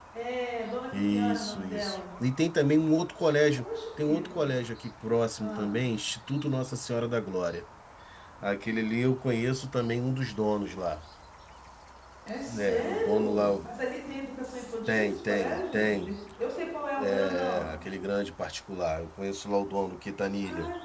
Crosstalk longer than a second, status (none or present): present